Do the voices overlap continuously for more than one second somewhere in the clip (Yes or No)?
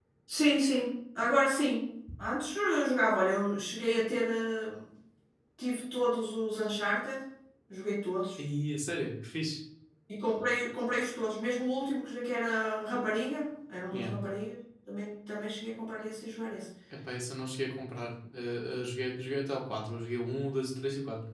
No